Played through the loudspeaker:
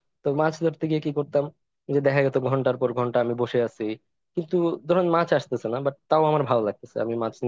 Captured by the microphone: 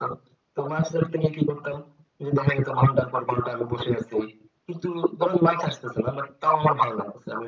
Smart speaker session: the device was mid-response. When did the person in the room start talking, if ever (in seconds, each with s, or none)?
none